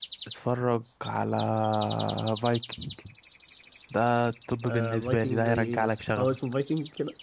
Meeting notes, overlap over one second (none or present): present